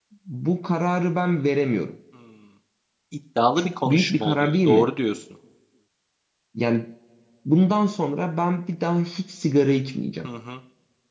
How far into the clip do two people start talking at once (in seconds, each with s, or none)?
3.6 s